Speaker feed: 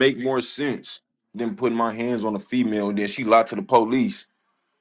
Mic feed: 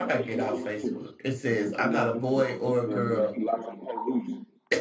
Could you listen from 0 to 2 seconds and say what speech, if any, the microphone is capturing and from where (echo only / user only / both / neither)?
both